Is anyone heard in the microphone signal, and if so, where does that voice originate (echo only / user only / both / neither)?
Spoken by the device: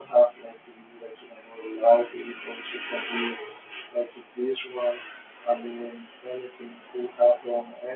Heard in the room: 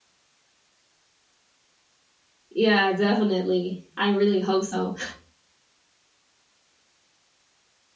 user only